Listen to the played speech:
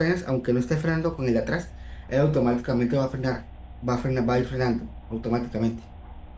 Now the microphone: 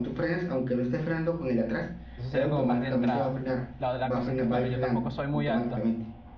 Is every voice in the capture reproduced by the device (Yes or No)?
No